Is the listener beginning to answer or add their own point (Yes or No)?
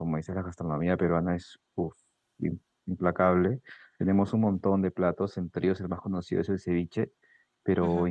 No